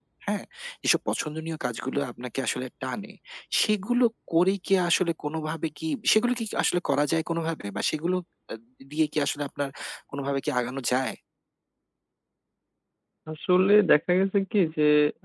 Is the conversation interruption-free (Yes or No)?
Yes